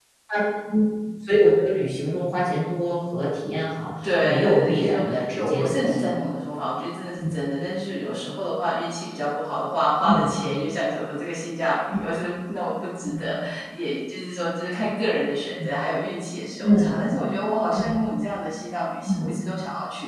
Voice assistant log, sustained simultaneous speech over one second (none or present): present